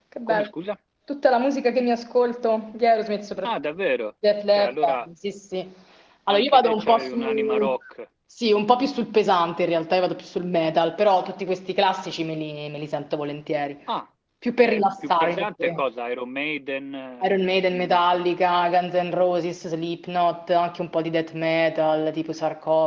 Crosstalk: present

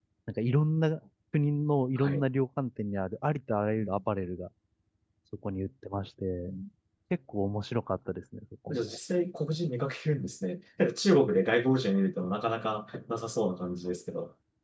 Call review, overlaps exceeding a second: none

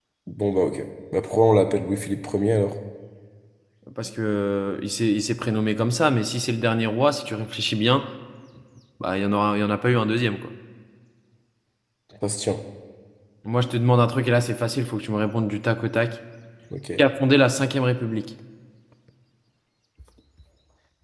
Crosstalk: none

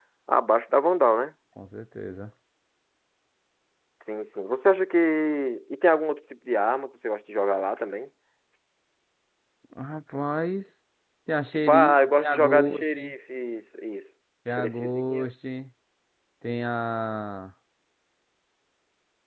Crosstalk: present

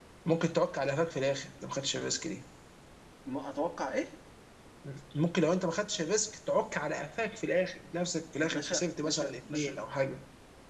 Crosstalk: present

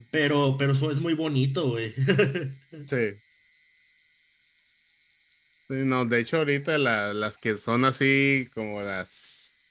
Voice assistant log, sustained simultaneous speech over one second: none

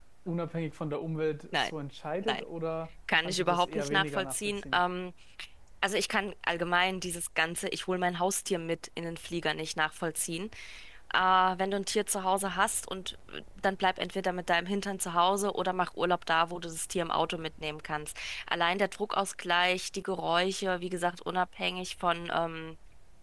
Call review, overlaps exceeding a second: present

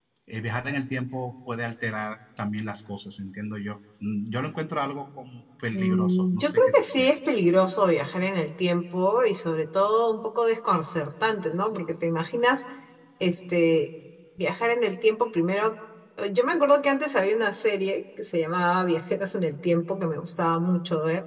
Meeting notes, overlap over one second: present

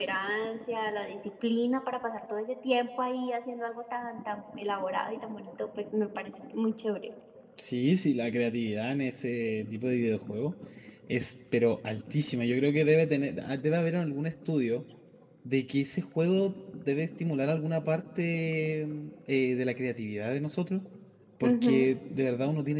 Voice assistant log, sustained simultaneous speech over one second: none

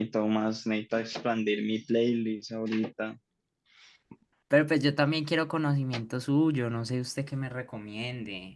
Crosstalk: none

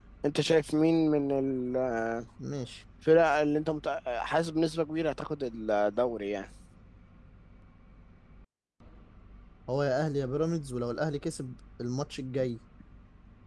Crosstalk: none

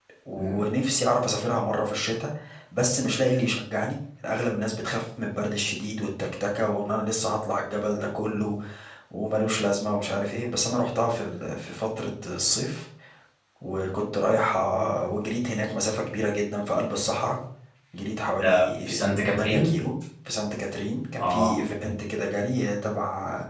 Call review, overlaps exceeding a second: present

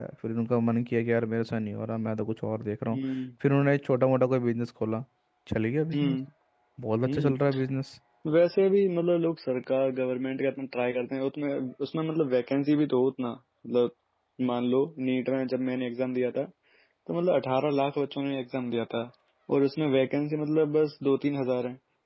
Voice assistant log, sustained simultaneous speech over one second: none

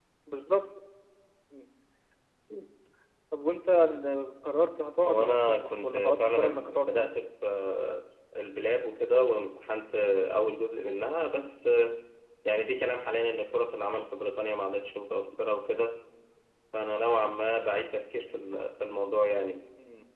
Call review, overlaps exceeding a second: present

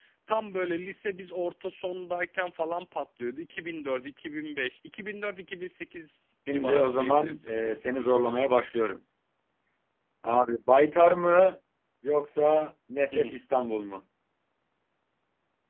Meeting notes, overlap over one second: present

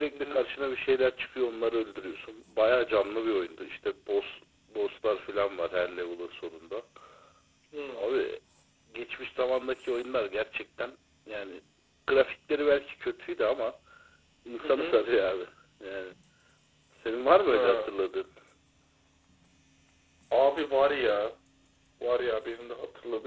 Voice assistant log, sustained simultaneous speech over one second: none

